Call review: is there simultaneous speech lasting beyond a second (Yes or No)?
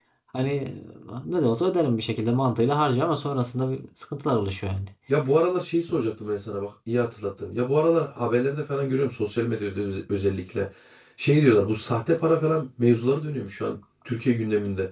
No